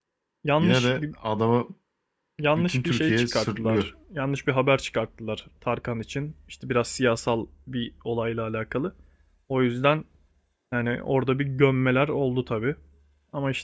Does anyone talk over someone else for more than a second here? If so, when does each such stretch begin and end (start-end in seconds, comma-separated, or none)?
2.6-3.9